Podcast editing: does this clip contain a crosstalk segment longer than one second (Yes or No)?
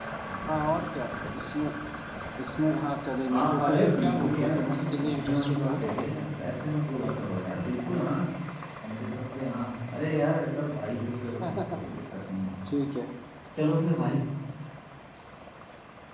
Yes